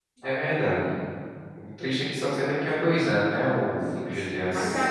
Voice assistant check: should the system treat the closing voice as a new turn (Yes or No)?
Yes